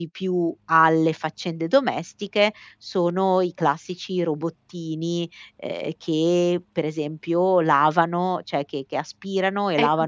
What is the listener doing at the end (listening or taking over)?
taking over